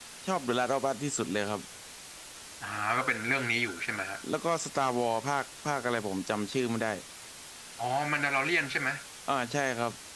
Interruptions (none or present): none